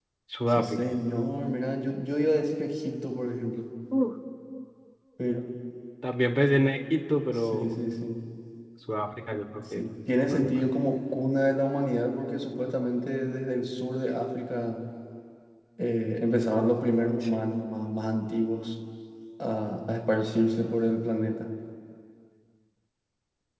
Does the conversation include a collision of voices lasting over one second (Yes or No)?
No